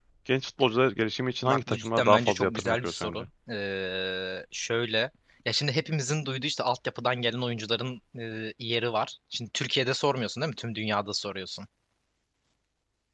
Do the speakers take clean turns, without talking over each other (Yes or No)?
No